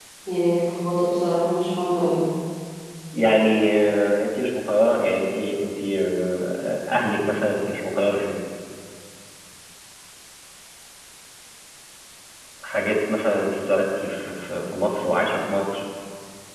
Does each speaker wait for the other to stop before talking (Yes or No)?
Yes